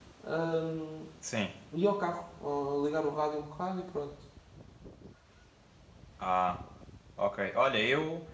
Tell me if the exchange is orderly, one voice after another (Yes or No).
Yes